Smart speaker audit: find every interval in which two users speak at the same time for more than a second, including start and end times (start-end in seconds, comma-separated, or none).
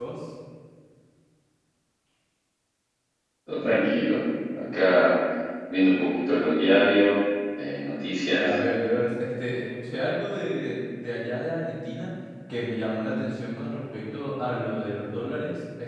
none